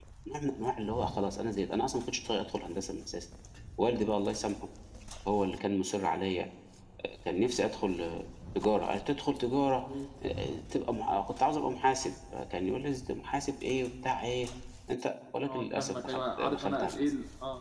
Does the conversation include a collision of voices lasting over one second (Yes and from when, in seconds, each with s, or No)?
Yes, from 15.4 s